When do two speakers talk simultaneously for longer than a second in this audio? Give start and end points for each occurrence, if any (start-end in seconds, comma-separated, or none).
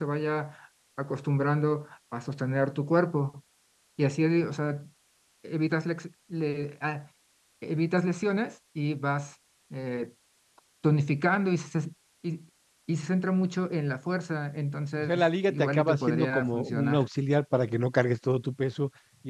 15.0-17.0